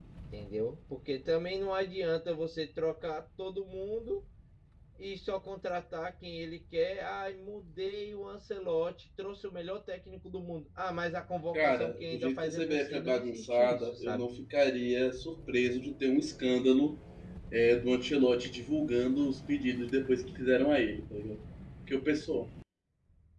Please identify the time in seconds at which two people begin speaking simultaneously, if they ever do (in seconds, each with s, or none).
11.5 s